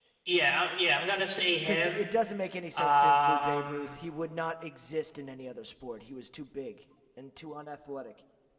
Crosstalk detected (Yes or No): Yes